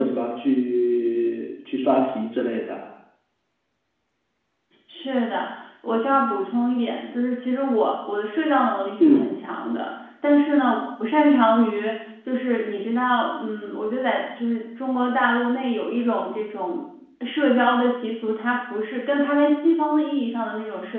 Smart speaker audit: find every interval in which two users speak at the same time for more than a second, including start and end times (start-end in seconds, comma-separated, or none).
none